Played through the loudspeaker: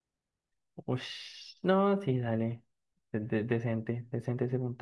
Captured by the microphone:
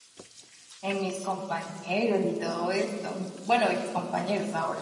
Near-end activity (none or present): present